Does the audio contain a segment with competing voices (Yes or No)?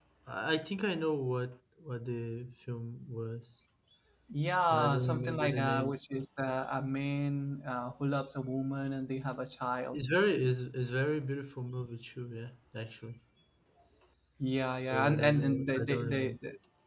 Yes